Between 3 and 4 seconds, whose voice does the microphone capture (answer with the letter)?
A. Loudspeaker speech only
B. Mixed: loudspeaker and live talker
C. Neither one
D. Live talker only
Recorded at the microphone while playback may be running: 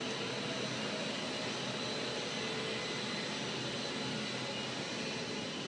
C